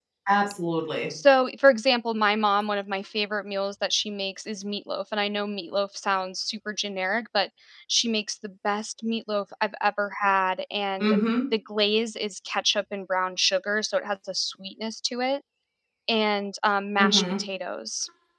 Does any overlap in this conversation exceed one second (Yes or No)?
No